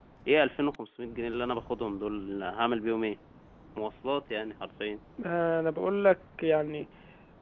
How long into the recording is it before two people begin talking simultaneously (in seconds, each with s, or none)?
none